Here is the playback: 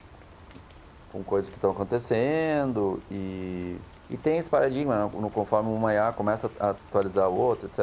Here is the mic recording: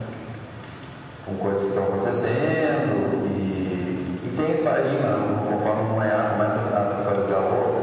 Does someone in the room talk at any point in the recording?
No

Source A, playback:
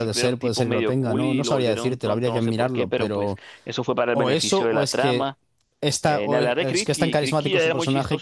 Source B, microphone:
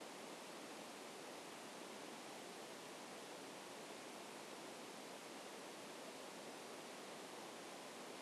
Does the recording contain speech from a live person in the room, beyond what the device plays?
No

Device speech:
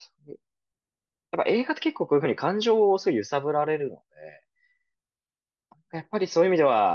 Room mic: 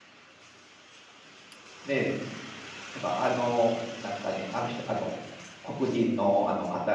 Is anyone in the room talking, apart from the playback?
Yes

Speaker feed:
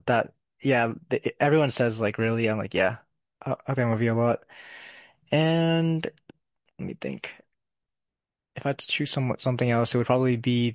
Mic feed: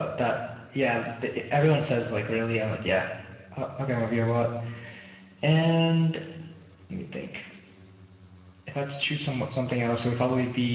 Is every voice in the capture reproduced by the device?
Yes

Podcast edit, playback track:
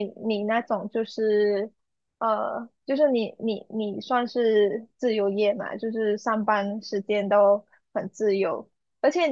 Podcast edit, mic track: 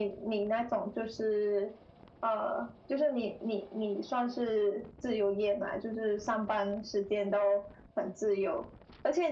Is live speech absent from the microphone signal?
Yes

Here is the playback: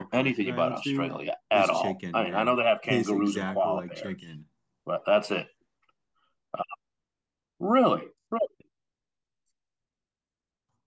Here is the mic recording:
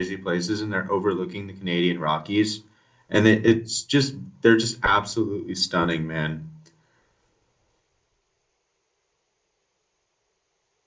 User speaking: Yes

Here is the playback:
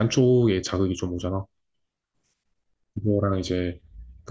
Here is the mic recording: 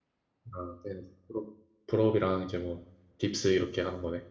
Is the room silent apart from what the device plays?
No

